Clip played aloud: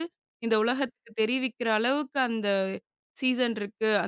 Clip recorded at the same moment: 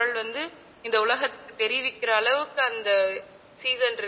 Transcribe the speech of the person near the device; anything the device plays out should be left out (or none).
none